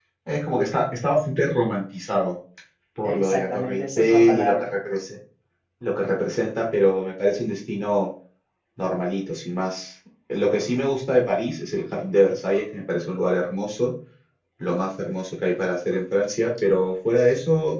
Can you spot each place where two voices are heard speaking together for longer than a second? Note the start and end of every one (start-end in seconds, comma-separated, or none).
3.0-4.7